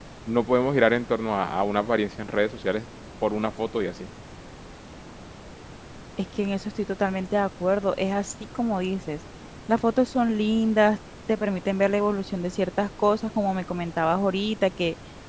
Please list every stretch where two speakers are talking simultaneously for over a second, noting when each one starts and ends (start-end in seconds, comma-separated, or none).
none